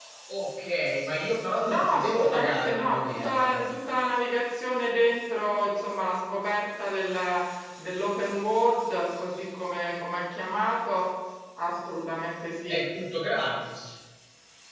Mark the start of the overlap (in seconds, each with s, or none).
1.6 s